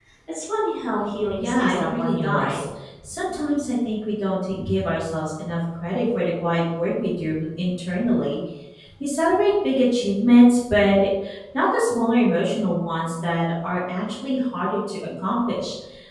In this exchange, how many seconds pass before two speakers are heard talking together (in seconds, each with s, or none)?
1.3 s